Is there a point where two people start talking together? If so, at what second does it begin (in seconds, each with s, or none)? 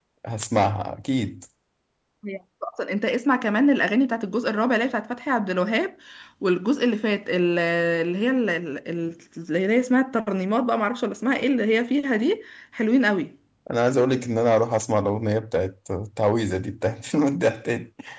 none